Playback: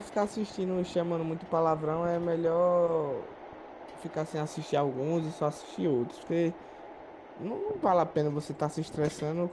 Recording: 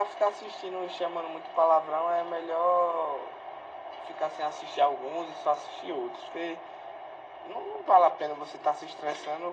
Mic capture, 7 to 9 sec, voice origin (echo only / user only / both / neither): echo only